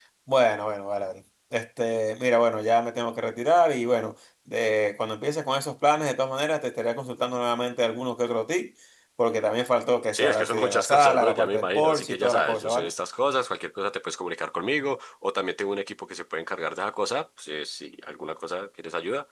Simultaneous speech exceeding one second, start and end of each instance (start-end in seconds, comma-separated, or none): 10.1-12.9